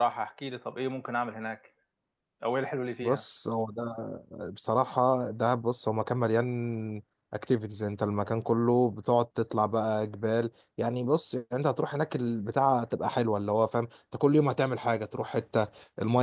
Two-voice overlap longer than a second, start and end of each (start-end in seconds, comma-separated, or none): none